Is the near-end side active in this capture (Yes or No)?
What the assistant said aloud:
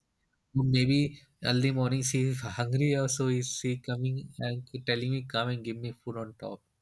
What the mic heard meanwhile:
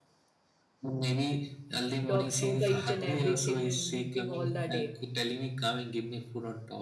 Yes